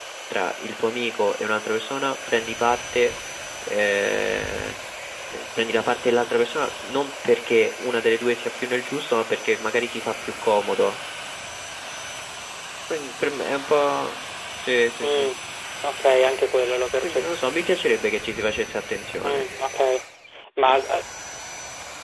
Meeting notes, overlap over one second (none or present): none